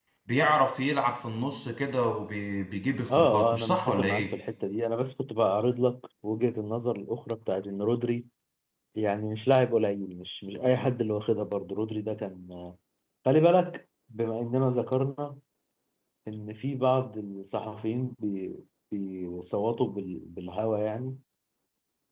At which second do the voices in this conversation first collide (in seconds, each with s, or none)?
3.1 s